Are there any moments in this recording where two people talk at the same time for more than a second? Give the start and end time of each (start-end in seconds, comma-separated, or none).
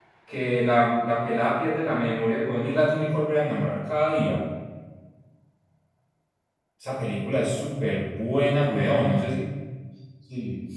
none